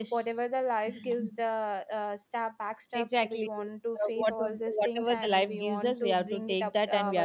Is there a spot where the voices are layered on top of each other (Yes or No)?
Yes